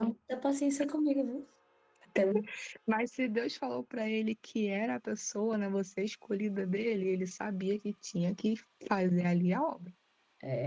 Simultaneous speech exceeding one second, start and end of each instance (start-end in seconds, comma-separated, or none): none